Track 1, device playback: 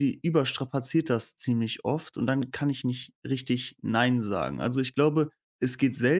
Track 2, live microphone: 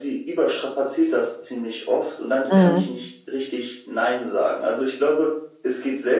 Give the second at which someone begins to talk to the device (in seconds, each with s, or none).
2.5 s